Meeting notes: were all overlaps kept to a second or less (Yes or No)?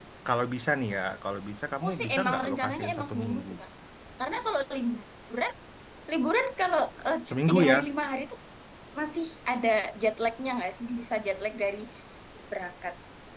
No